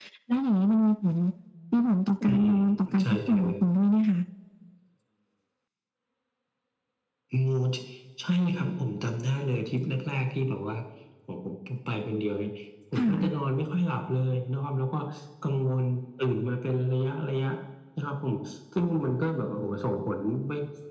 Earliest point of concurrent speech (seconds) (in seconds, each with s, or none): 2.3 s